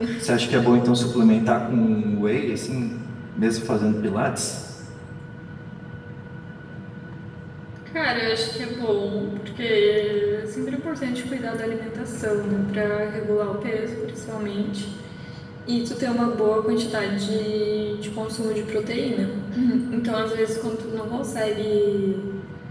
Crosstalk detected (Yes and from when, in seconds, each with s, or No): No